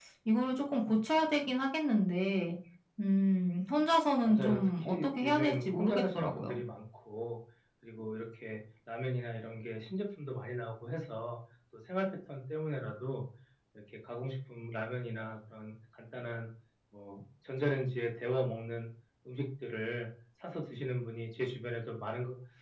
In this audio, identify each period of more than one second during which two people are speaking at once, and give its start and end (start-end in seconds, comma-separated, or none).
4.2-6.5